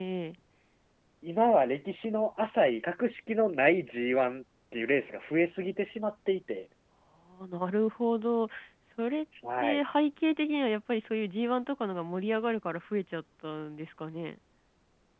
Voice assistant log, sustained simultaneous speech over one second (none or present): none